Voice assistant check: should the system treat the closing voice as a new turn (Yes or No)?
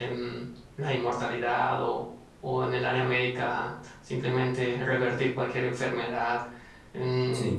No